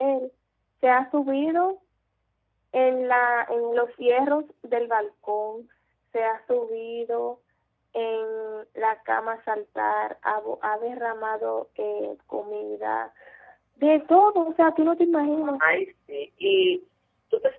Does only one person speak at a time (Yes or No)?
Yes